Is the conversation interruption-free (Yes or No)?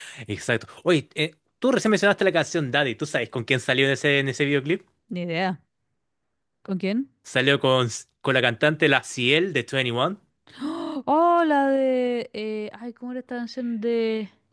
Yes